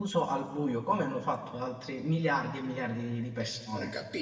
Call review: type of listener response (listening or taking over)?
taking over